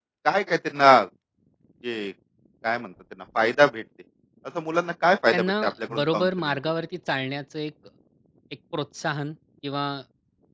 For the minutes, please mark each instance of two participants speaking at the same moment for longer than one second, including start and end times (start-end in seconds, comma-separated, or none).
5.3-6.6